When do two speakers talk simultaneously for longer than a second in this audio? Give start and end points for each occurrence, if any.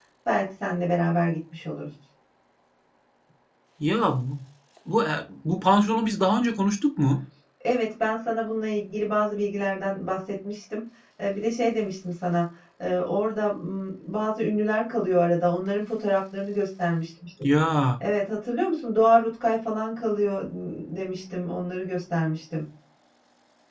none

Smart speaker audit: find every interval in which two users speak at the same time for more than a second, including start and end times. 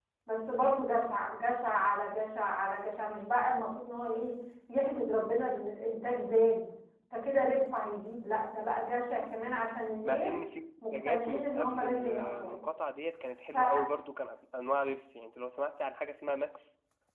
10.9-12.6

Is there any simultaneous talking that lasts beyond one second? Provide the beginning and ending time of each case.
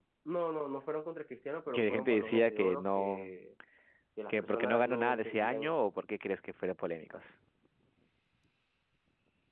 1.7-3.3, 4.3-5.7

